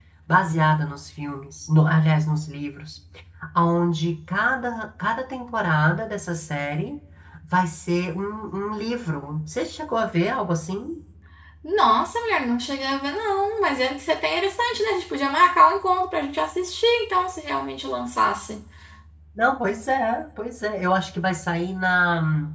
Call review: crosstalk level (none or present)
none